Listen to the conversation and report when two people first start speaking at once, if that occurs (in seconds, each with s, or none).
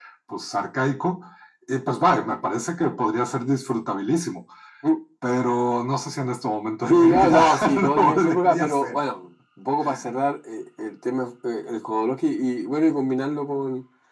6.9 s